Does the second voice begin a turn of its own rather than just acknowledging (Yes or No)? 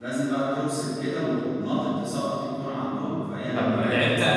Yes